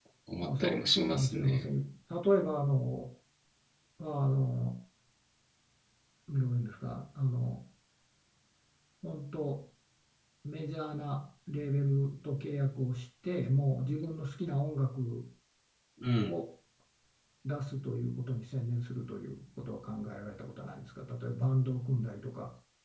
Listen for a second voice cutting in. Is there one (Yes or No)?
Yes